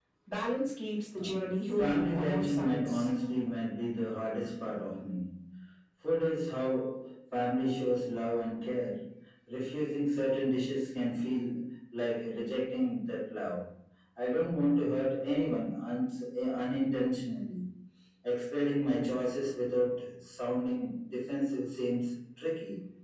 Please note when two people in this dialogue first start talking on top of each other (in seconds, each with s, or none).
1.2 s